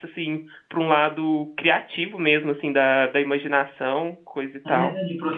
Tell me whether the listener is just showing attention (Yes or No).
No